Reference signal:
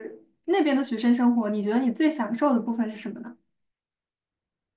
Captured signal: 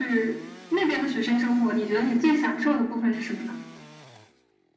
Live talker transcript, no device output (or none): none